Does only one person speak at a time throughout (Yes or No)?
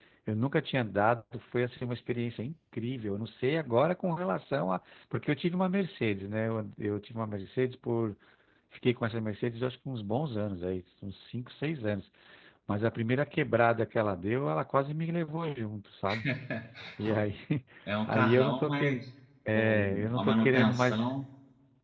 No